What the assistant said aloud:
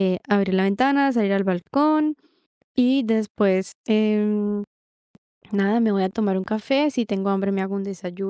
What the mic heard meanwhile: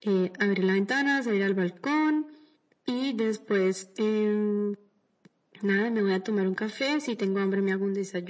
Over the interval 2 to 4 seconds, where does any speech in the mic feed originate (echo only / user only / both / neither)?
echo only